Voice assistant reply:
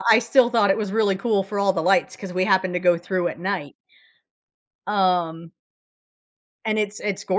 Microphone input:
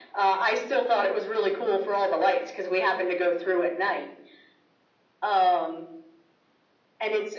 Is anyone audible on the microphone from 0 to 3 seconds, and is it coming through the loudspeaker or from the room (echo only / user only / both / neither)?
echo only